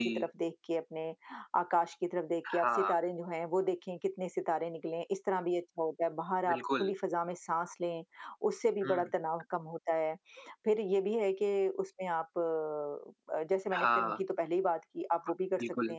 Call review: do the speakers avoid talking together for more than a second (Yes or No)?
Yes